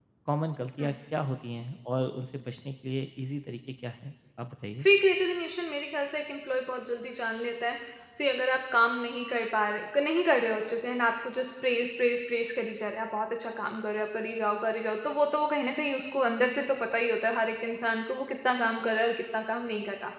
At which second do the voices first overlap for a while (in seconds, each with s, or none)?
none